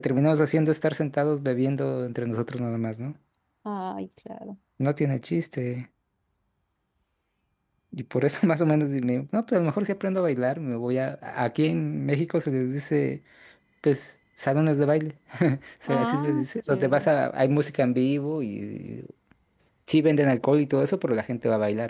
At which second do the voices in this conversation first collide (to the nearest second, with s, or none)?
16 s